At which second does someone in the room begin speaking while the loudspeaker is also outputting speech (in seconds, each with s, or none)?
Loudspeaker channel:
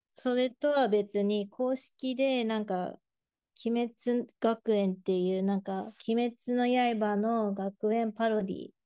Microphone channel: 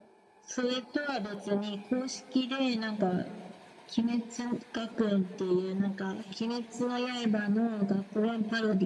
none